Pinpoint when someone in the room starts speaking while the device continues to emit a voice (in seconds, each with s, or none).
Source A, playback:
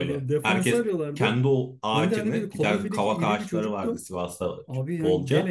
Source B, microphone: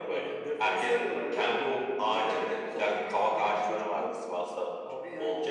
none